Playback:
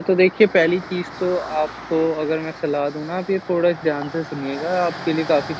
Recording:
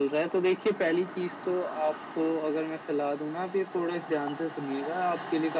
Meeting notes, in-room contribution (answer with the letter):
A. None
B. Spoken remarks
A